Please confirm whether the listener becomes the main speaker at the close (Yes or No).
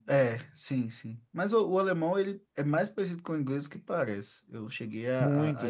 Yes